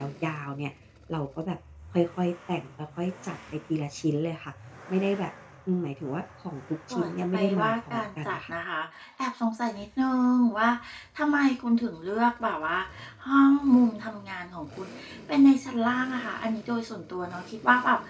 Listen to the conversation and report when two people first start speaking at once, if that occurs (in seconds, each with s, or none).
6.9 s